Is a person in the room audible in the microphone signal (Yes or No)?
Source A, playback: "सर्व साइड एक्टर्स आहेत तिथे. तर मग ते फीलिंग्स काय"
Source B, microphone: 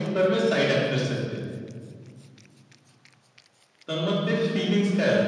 No